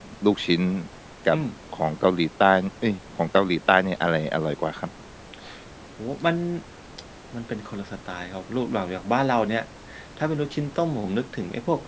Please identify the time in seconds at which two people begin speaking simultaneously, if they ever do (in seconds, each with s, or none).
none